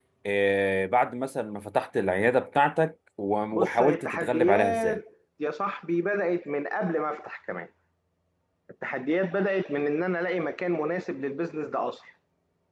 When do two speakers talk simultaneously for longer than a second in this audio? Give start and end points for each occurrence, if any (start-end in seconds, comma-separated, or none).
3.5-5.0